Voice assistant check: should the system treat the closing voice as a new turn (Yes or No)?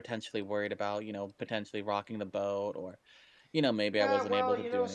Yes